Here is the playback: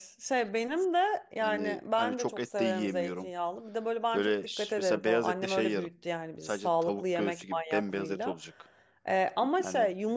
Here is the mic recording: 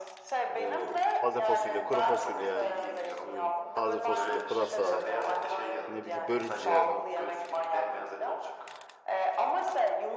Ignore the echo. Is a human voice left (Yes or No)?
Yes